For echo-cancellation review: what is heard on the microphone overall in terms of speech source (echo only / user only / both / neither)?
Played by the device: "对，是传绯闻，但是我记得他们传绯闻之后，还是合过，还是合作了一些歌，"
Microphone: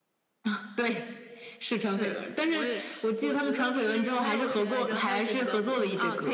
both